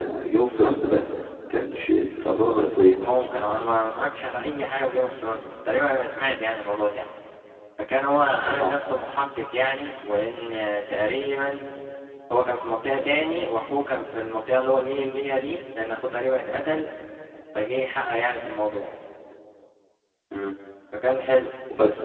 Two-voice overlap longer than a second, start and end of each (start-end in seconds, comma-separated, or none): none